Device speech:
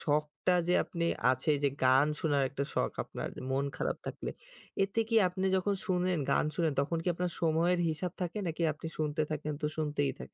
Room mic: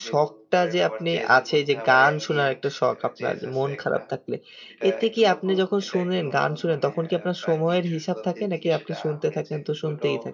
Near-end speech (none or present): present